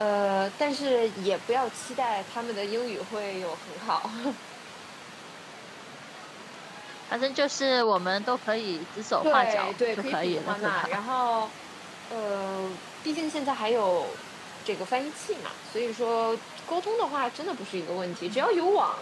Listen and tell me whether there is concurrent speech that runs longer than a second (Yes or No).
Yes